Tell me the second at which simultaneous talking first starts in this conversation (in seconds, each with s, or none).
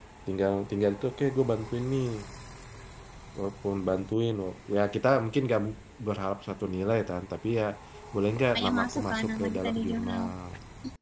8.6 s